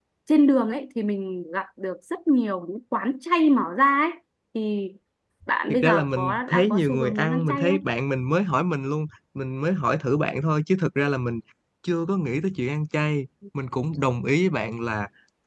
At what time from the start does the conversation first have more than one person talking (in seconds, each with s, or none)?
5.7 s